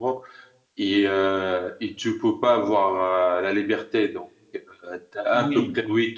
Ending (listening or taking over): listening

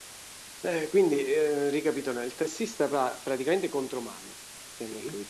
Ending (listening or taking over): listening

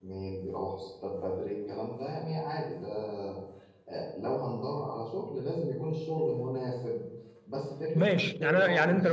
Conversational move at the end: taking over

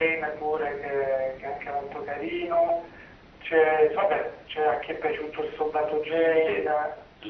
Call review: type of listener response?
taking over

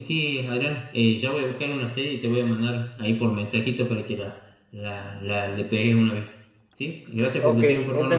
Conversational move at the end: taking over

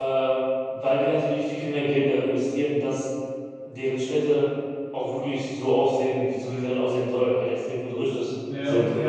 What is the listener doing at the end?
taking over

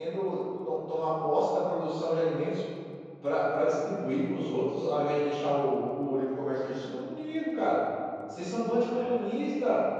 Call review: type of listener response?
listening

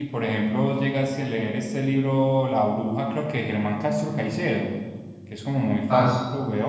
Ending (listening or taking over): listening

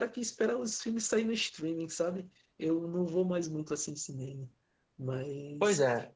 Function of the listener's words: taking over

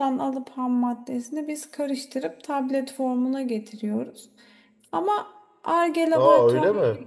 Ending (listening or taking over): taking over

